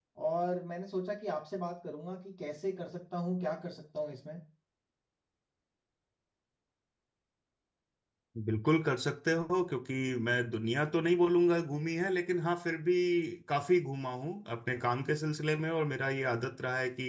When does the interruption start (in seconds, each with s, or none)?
none